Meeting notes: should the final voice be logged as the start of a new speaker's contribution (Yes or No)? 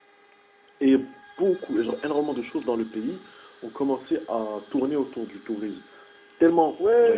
Yes